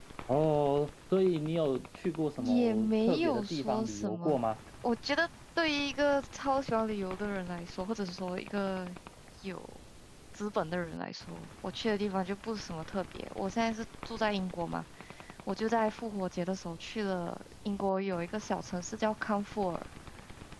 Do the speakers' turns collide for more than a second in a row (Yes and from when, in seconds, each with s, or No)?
Yes, from 2.4 s